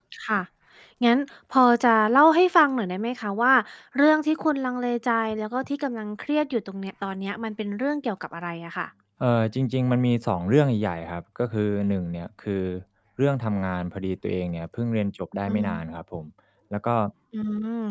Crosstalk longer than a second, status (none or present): none